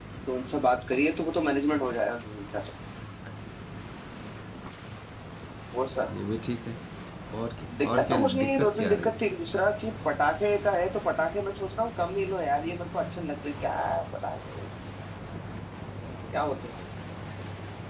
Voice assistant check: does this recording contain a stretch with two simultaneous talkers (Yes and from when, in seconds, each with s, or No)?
Yes, from 7.8 s